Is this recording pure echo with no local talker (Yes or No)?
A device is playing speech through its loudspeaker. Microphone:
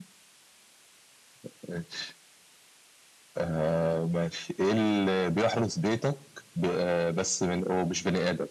Yes